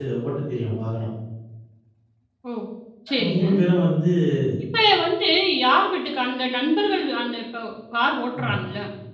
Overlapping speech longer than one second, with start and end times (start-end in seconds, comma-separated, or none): none